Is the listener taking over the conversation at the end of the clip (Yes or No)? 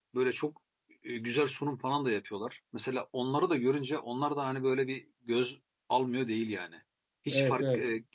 No